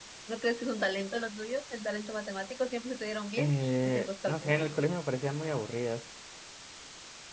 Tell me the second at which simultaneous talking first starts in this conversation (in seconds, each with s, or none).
3.4 s